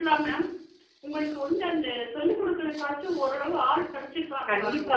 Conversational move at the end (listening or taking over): taking over